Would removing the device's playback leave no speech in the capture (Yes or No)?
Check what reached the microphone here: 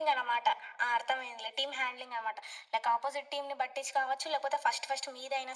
Yes